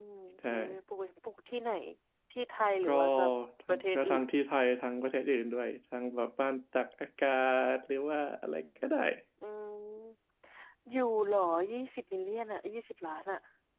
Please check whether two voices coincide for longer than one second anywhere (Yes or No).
No